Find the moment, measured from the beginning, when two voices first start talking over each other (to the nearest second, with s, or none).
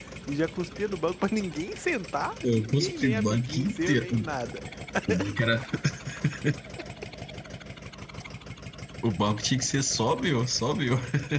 2 s